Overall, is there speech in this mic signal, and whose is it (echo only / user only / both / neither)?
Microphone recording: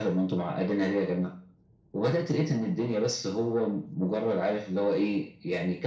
echo only